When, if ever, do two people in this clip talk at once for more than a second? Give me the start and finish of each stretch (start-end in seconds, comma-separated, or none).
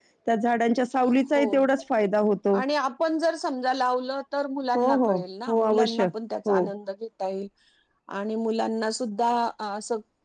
4.8-6.1